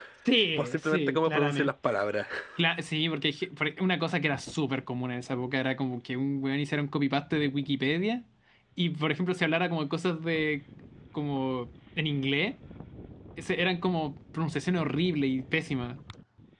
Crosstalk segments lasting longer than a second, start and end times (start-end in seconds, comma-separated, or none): 0.6-2.0